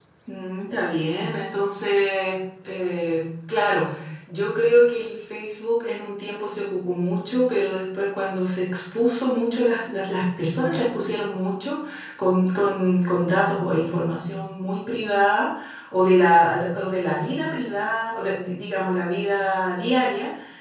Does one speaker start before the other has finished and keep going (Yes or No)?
No